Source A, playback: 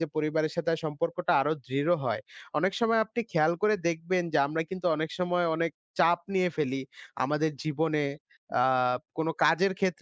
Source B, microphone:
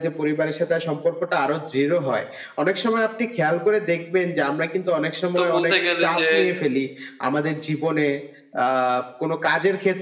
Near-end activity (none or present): present